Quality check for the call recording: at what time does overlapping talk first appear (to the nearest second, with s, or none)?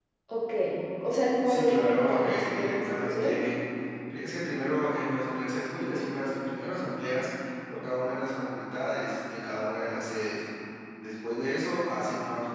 1 s